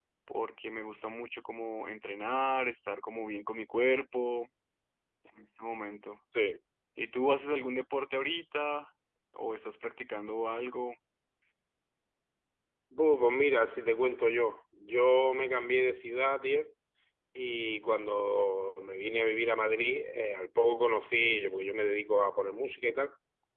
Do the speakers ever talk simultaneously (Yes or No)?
No